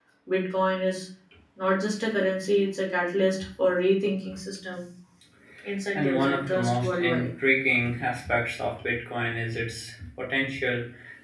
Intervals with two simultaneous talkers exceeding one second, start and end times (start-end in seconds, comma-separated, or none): 6.0-7.3